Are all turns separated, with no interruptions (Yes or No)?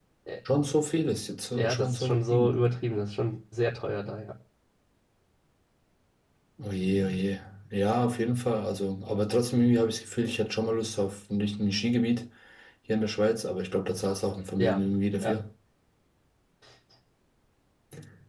No